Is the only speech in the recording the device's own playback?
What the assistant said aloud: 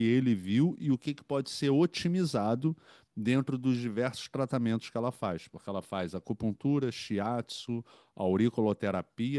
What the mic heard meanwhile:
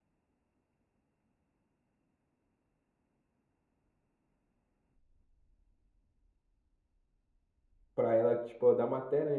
No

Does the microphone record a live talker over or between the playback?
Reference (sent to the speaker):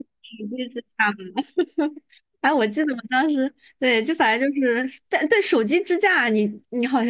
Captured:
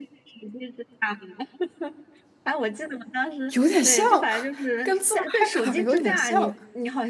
Yes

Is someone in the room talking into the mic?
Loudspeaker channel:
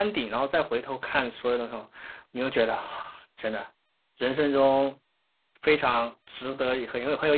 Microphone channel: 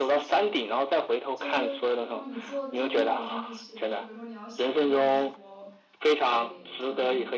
Yes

